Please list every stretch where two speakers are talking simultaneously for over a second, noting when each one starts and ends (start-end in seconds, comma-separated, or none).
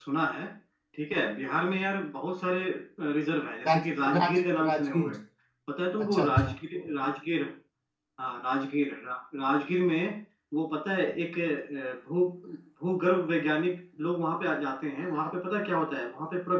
3.7-5.1